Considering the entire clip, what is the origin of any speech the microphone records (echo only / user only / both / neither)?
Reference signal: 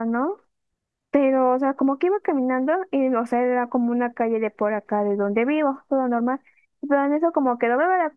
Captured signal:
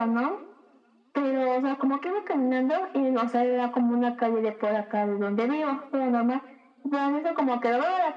echo only